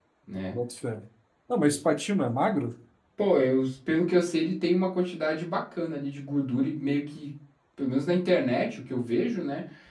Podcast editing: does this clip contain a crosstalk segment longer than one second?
No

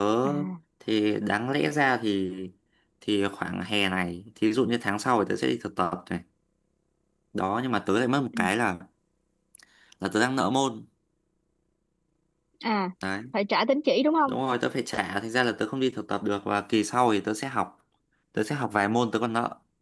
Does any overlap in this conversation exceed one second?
No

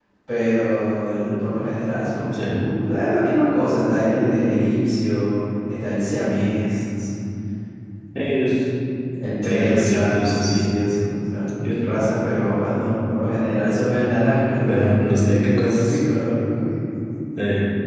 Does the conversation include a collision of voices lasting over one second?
Yes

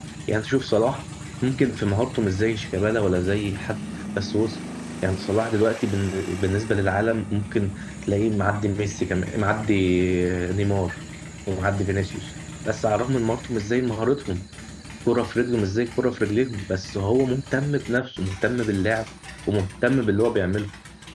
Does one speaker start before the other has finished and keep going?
No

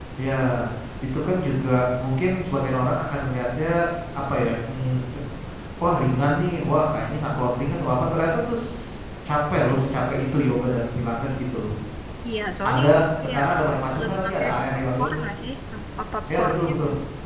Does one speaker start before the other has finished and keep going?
Yes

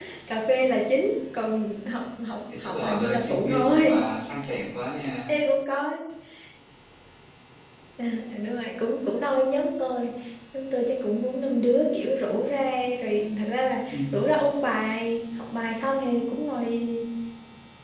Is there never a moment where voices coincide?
No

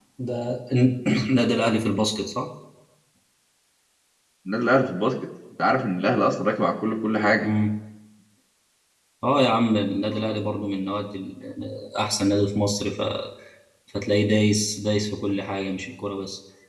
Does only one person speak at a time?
Yes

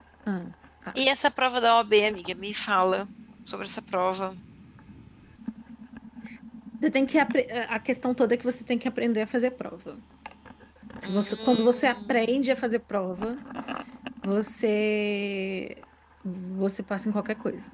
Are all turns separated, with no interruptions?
No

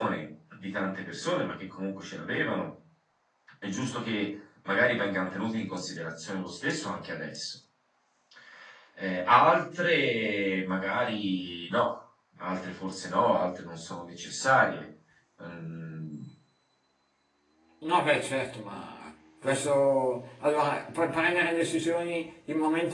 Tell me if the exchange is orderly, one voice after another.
Yes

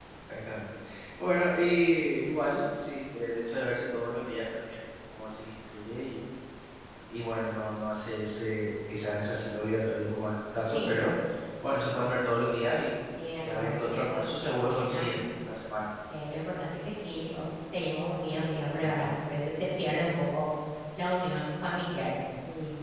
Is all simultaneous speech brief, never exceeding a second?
No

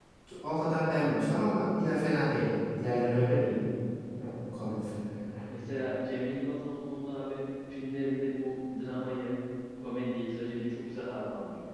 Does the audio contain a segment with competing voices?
No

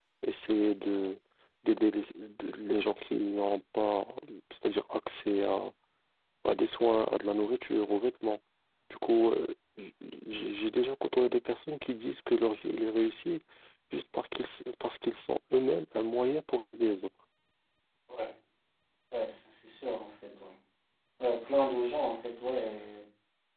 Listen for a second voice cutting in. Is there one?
No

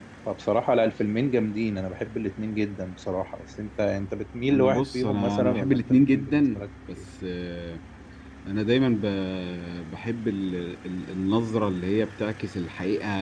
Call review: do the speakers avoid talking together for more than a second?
No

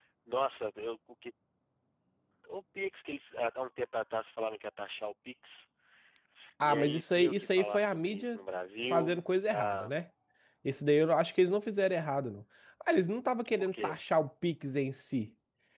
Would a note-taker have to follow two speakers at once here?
Yes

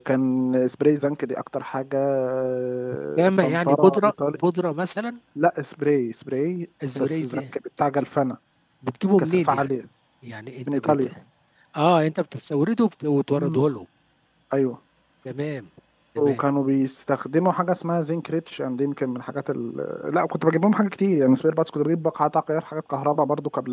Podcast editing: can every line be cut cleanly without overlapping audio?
No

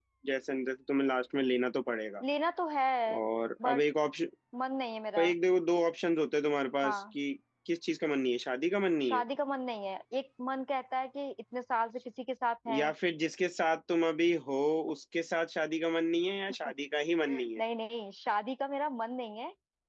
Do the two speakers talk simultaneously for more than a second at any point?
No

